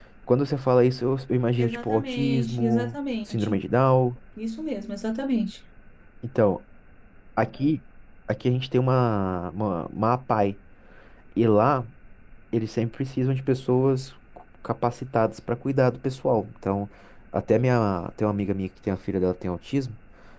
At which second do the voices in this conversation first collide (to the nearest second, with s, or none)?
2 s